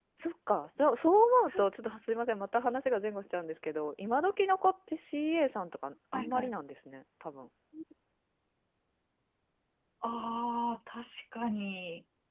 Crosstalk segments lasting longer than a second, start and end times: none

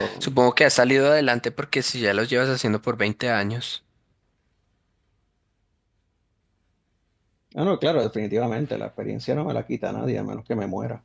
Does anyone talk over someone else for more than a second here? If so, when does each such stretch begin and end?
none

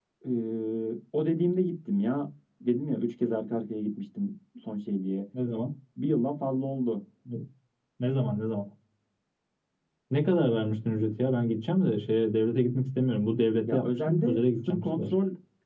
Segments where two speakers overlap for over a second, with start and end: 13.7-15.1

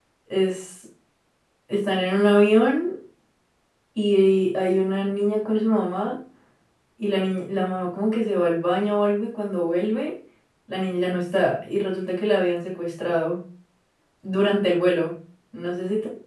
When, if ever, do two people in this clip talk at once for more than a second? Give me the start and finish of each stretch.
none

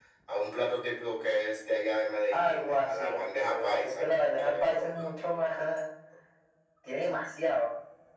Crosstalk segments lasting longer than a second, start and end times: 2.3-5.1

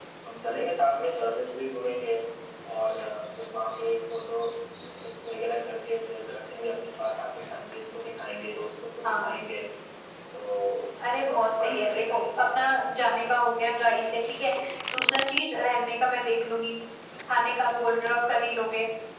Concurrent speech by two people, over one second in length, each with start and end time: 11.2-12.6

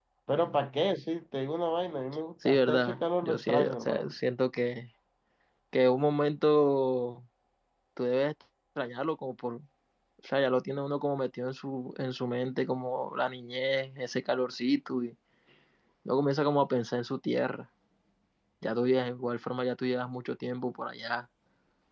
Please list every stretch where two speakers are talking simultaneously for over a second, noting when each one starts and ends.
2.4-4.1

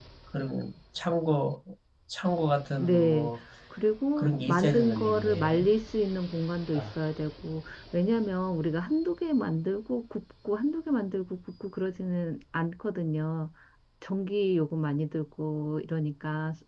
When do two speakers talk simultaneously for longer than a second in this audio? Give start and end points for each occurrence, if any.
4.2-5.7

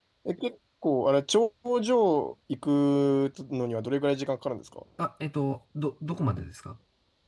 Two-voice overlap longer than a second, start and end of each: none

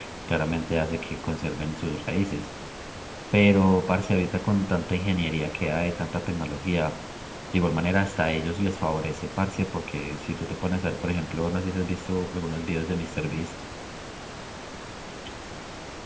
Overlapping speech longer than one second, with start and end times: none

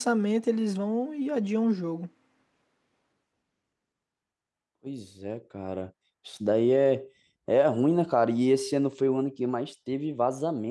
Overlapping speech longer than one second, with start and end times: none

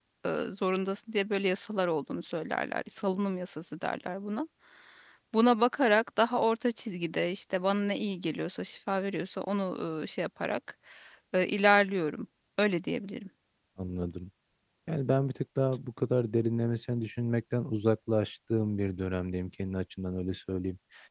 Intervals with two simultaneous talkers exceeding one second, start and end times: none

